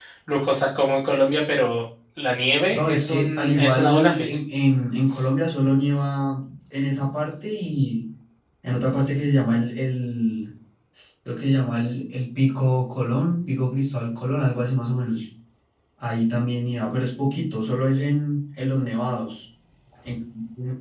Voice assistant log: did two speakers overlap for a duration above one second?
Yes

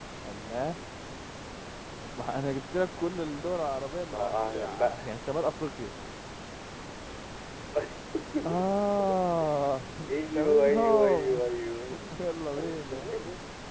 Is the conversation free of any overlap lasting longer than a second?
No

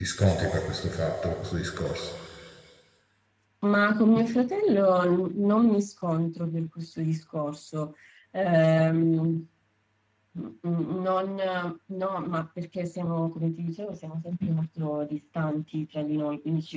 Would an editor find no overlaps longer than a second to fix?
Yes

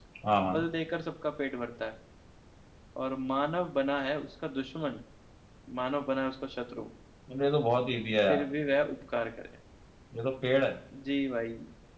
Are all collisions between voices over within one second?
Yes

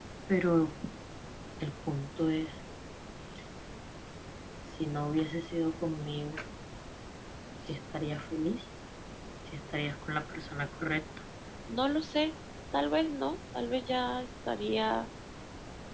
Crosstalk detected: No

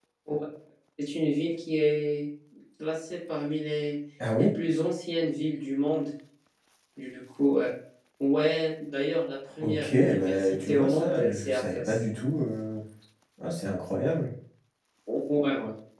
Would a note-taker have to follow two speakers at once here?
Yes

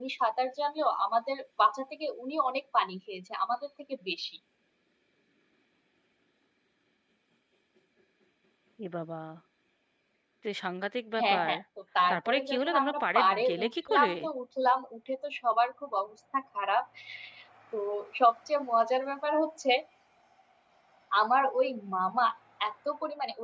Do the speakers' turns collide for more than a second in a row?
Yes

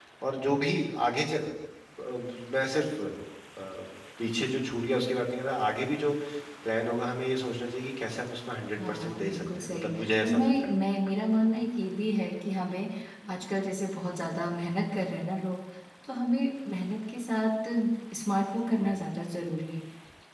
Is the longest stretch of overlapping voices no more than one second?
No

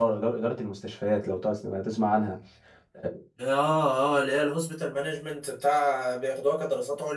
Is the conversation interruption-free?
Yes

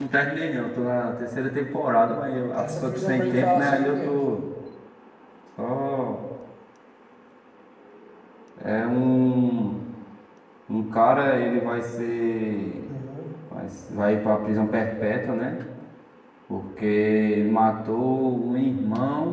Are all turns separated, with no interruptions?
No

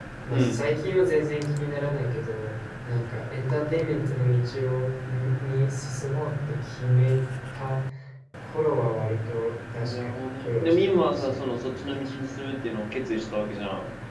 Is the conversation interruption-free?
No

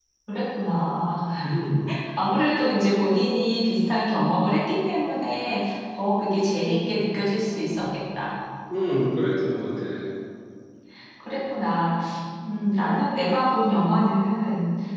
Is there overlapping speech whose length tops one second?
No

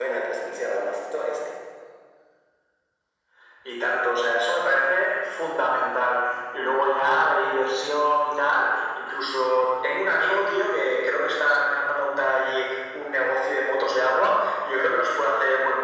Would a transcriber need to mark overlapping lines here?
No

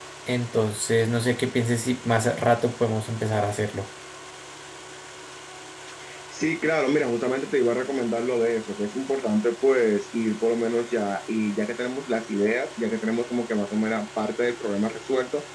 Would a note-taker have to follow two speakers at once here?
No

